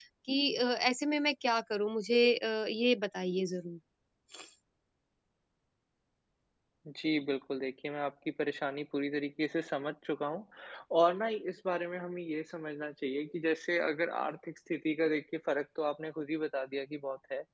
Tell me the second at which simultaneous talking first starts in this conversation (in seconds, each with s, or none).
none